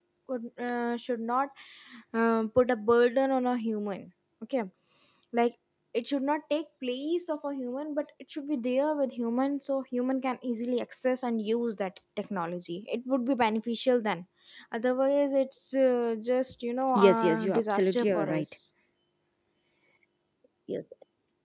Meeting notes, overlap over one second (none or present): present